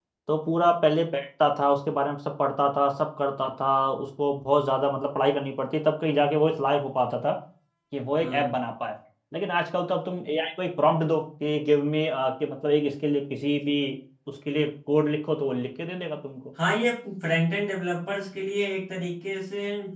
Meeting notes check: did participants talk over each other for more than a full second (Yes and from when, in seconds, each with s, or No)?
No